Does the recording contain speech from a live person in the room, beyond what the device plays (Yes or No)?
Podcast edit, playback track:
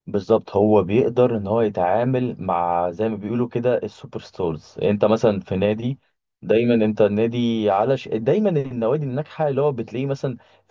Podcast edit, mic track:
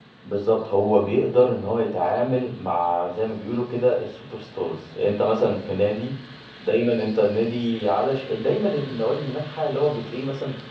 No